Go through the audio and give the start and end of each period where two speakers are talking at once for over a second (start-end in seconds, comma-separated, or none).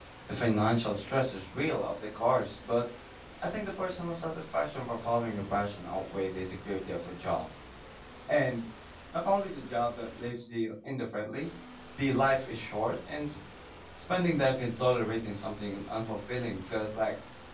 none